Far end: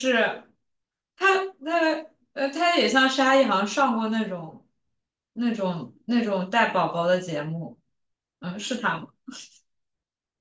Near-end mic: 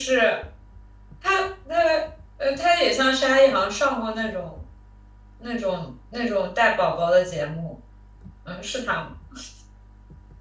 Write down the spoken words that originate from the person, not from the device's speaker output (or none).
none